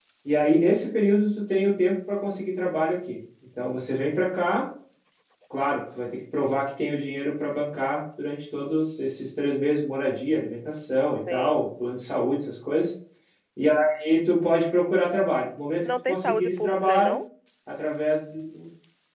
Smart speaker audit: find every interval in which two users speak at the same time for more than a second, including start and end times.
15.8-17.2

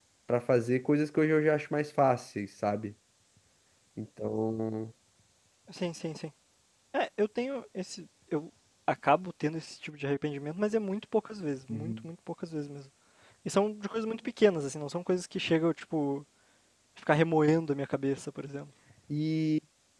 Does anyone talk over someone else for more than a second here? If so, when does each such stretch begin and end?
none

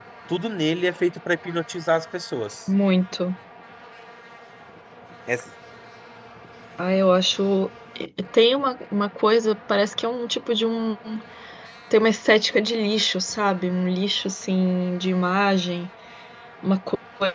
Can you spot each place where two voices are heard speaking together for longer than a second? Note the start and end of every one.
none

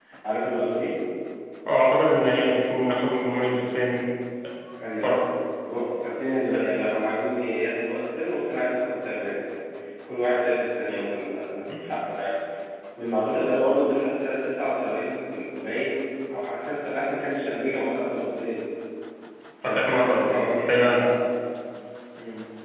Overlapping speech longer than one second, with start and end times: 19.6-21.1

